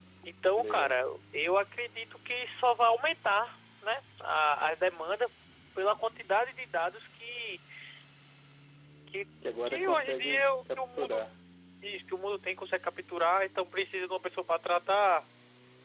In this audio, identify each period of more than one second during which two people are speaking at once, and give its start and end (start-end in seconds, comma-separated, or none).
9.6-11.2